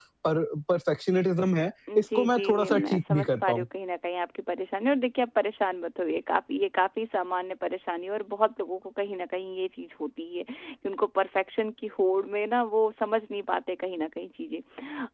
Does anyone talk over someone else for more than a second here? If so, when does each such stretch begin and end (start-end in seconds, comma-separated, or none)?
1.9-3.6